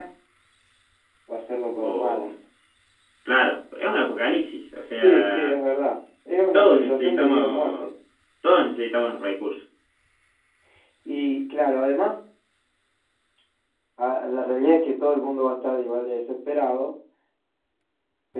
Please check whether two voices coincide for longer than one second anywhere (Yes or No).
Yes